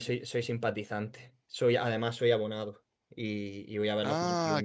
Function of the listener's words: taking over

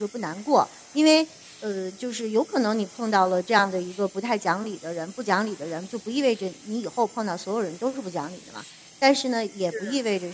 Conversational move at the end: listening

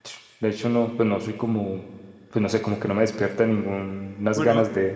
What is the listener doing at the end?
taking over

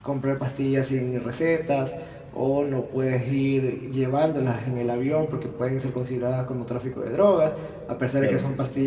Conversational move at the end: listening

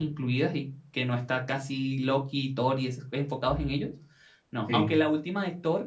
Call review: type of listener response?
listening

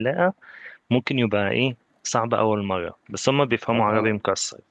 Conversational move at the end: listening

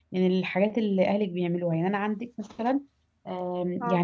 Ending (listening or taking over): listening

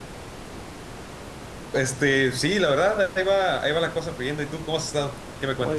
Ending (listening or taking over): taking over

